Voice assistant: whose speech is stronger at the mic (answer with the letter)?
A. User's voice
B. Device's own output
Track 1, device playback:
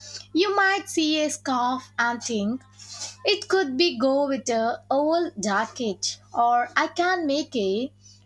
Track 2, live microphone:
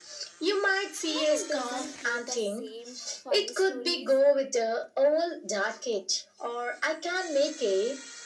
B